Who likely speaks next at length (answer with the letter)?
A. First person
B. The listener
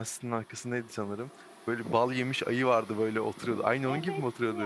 B